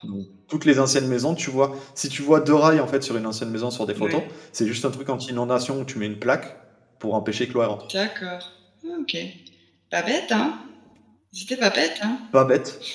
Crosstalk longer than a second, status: none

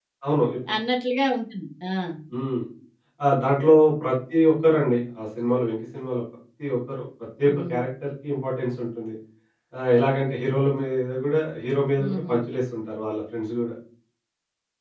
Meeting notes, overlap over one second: none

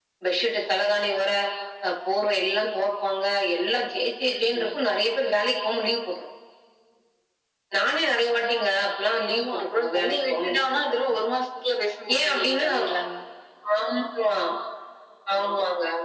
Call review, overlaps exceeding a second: present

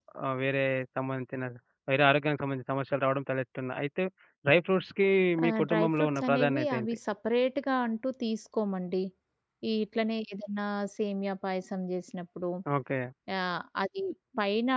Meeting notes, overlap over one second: present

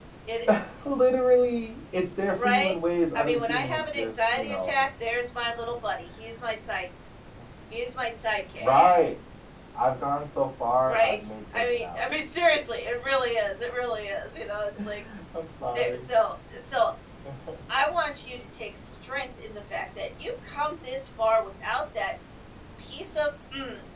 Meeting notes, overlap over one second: present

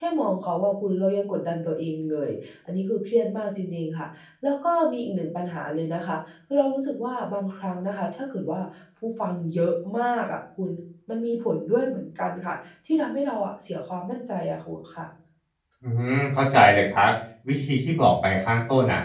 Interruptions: none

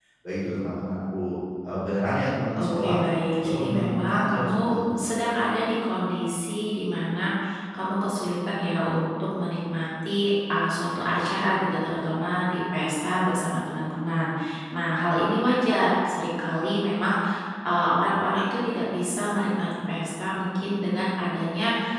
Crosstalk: present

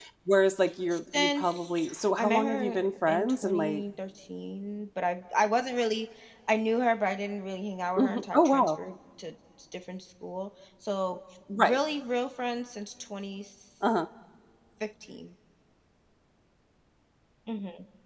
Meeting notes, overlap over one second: present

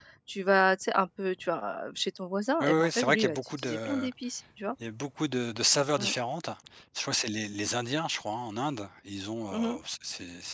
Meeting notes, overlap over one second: present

